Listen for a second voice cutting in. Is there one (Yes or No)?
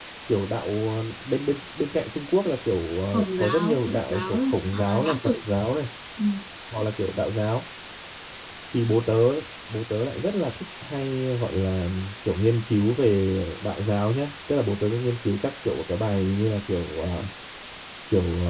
Yes